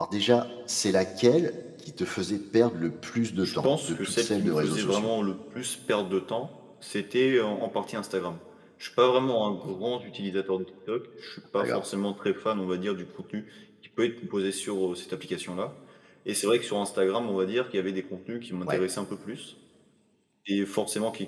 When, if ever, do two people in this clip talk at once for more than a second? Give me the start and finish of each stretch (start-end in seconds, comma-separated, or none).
3.4-5.1